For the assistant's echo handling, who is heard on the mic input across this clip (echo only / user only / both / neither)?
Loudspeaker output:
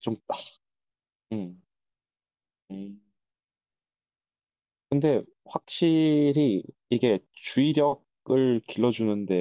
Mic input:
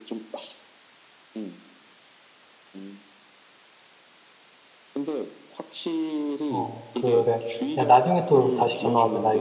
both